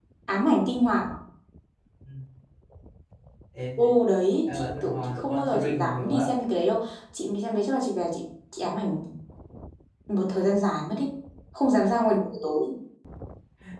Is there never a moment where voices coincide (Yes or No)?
No